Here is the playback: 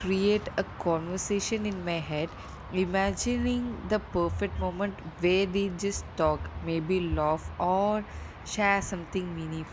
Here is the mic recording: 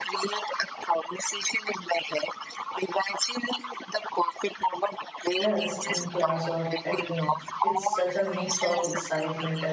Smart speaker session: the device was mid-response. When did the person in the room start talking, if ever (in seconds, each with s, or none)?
5.4 s